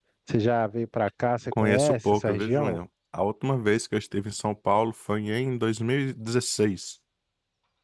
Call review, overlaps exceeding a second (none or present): present